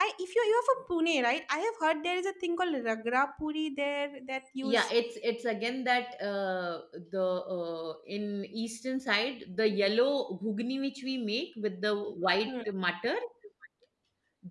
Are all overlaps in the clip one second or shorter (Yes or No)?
Yes